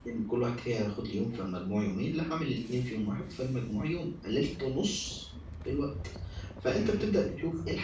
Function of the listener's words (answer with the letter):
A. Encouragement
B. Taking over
A